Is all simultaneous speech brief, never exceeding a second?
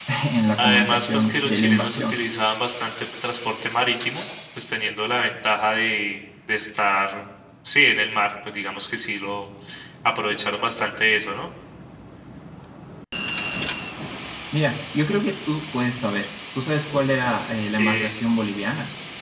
No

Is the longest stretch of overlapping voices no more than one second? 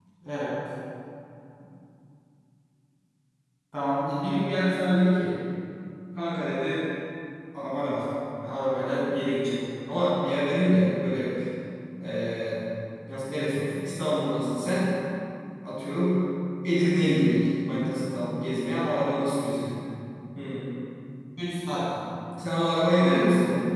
Yes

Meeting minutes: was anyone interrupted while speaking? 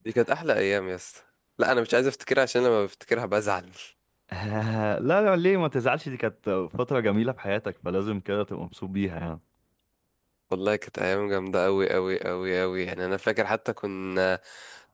No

